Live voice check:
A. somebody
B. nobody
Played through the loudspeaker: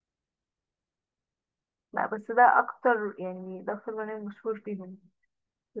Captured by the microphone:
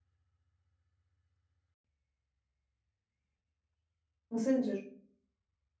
A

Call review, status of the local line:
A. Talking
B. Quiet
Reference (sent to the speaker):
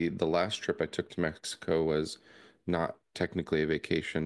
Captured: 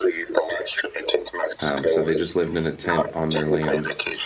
A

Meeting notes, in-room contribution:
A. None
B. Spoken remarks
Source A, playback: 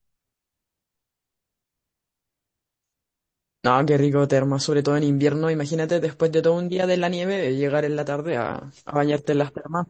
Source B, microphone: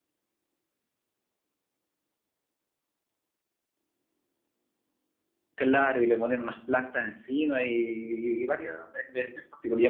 B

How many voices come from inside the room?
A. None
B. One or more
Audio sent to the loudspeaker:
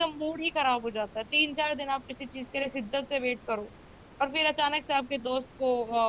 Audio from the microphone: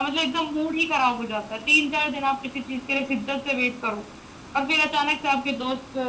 A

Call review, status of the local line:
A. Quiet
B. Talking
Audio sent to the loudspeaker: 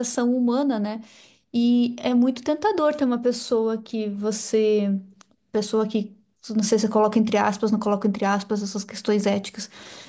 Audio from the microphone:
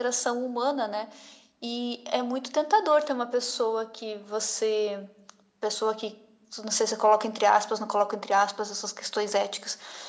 A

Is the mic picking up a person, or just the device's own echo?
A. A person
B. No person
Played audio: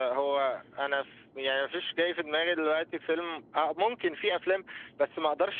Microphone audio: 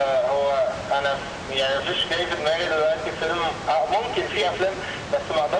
B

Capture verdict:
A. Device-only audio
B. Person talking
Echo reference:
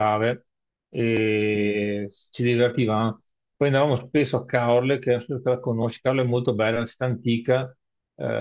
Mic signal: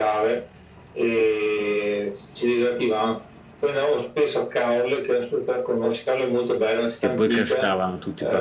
B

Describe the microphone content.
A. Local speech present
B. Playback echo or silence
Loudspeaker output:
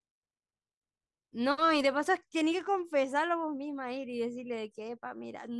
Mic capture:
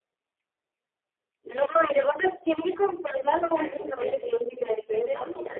A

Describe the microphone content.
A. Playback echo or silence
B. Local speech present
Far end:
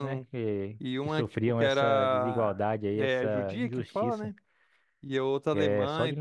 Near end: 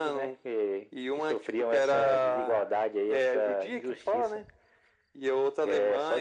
A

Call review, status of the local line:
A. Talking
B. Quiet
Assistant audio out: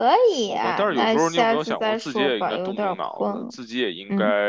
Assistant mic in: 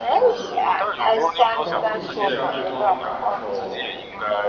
A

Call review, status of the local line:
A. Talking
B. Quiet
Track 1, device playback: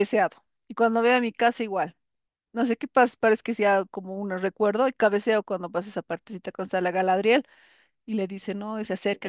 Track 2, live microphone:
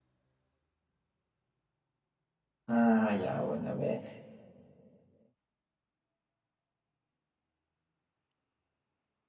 A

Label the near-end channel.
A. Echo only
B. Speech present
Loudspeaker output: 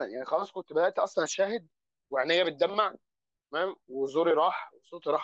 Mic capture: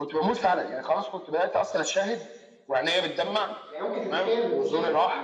B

